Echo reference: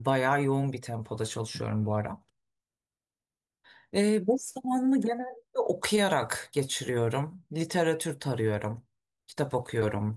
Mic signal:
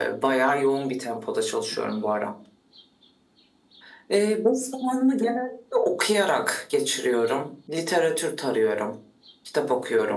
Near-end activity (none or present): none